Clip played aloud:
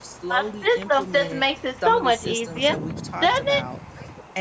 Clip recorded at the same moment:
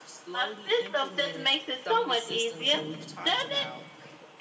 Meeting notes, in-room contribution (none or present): none